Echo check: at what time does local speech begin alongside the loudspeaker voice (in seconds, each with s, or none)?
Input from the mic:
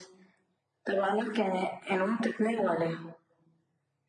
none